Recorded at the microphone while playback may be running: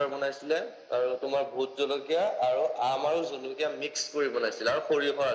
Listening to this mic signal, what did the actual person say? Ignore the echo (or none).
none